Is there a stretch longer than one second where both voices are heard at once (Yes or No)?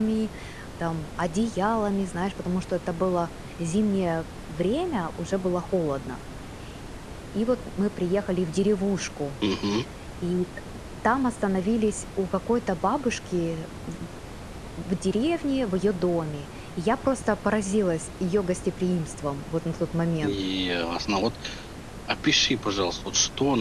No